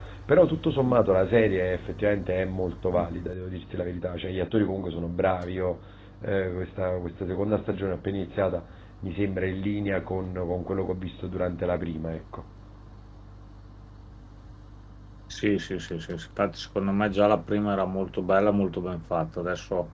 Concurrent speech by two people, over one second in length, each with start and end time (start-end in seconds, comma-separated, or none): none